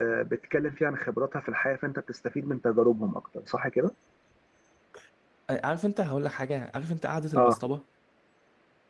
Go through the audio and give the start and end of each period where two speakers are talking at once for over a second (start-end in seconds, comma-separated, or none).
none